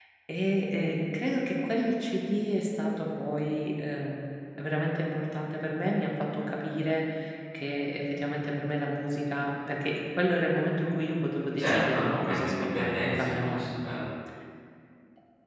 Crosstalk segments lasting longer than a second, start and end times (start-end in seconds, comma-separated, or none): 11.6-13.7